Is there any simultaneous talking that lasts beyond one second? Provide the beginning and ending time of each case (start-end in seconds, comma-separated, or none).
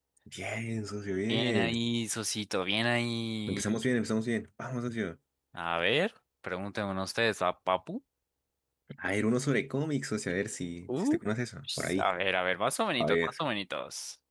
none